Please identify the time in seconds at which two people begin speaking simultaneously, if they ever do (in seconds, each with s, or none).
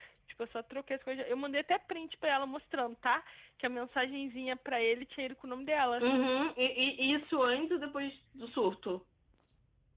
none